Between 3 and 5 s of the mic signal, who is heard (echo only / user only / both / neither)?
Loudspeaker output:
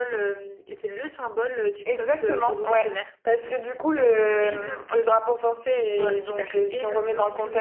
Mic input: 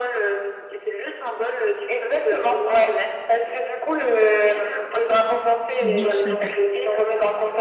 echo only